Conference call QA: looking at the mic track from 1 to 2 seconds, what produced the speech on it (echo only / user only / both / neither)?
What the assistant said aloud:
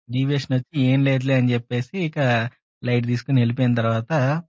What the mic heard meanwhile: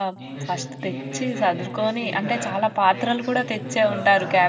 both